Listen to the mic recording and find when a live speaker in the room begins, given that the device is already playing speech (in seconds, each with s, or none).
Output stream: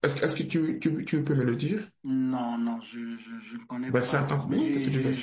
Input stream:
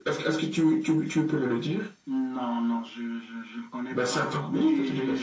none